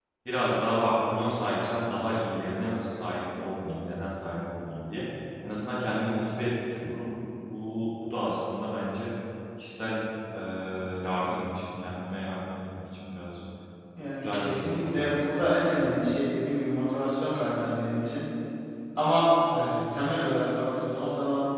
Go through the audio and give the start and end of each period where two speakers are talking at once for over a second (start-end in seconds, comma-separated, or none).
14.2-16.0